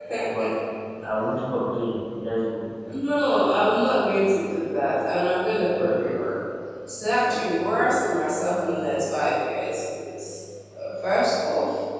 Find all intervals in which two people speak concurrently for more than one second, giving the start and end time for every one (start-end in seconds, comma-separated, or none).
none